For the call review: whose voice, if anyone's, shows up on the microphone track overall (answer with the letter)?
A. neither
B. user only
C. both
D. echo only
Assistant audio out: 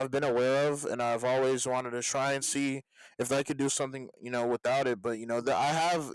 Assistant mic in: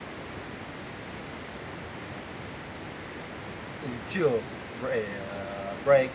B